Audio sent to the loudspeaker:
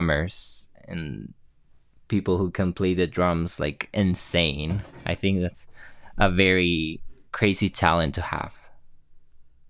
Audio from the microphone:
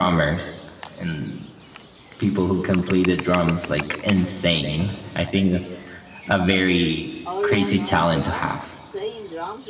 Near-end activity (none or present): present